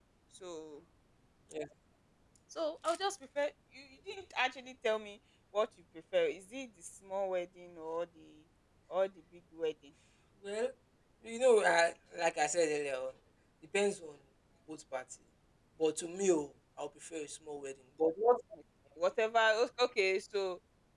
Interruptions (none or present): none